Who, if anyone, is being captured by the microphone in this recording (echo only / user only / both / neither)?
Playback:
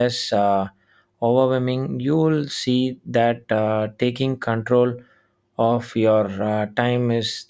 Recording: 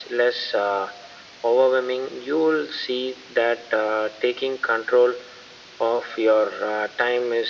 echo only